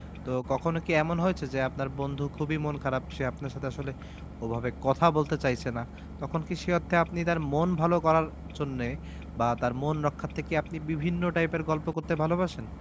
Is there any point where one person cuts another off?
No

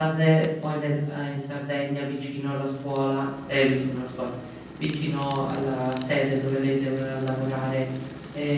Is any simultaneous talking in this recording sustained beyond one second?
No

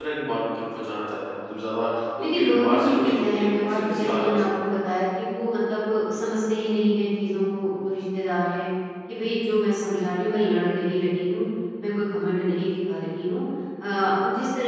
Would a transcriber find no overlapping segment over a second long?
No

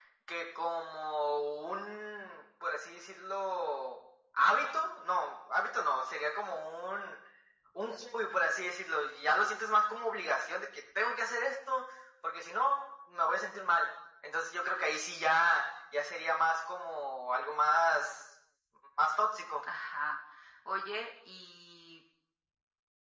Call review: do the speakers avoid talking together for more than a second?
Yes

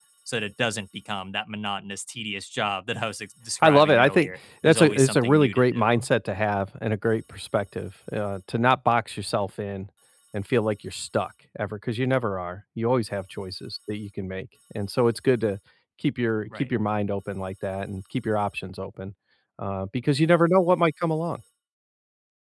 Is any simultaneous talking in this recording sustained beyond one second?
Yes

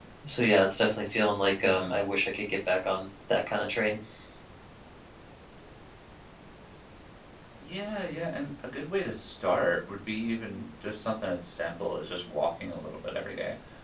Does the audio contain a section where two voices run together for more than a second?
No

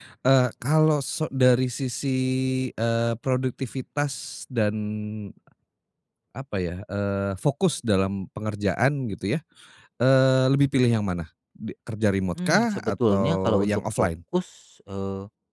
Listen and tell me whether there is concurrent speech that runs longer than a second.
Yes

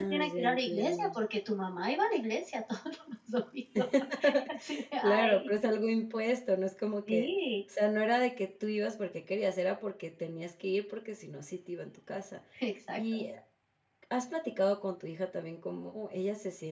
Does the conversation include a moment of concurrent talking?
Yes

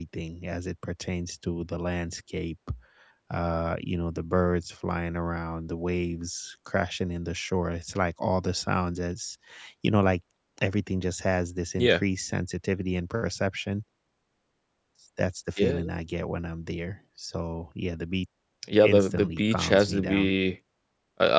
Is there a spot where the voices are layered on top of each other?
Yes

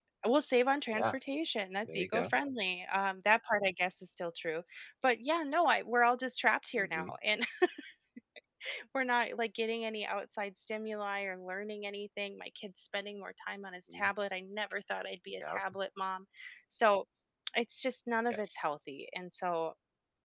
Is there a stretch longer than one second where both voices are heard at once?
No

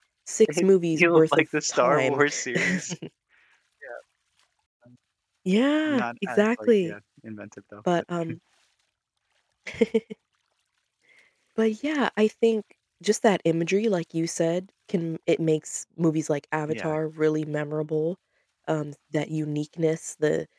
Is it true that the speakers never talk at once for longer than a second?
No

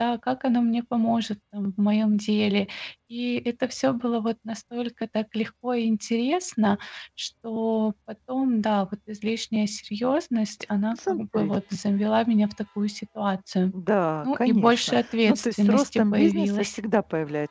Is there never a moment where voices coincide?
No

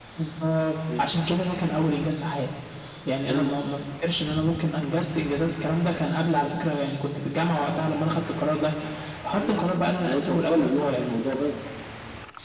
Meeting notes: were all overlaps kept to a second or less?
No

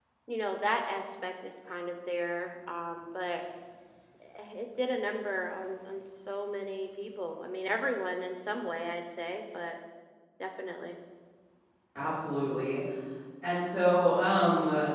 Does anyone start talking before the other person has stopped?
No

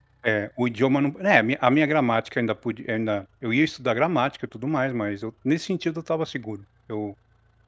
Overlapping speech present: No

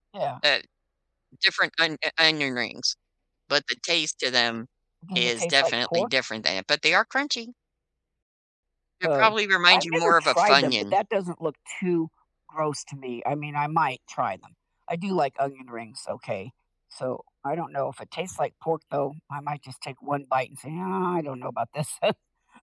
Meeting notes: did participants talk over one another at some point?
Yes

